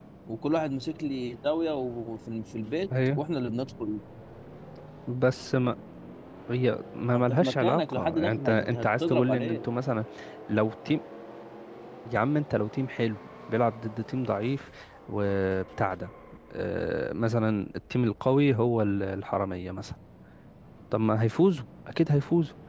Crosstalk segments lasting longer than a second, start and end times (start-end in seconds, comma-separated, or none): 7.1-9.7